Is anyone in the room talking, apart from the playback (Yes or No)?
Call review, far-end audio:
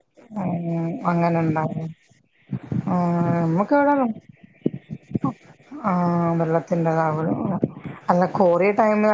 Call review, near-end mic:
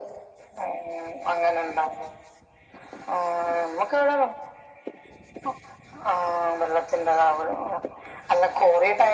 No